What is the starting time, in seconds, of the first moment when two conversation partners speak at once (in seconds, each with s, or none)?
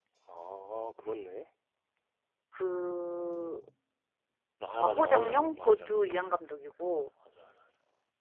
4.8 s